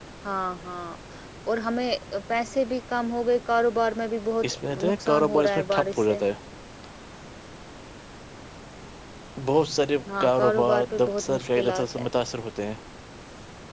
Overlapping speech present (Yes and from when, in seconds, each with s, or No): Yes, from 4.4 s